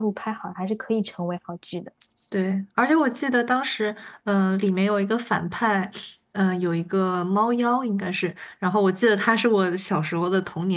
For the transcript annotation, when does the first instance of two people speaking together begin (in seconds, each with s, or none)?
none